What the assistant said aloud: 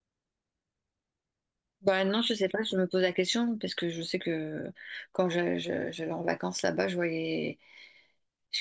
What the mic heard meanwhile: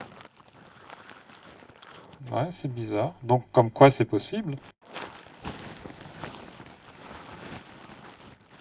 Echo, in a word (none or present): none